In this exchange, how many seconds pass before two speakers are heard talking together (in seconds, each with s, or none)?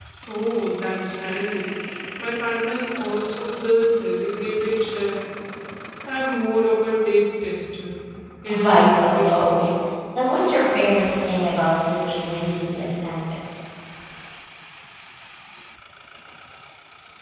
8.5 s